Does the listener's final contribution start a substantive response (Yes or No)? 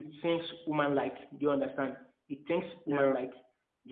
No